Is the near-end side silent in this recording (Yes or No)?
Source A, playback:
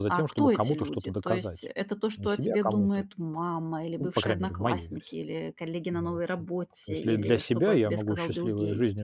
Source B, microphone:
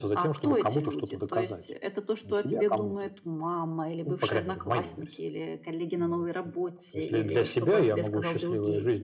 Yes